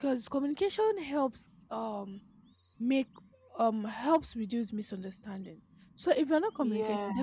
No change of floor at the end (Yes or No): Yes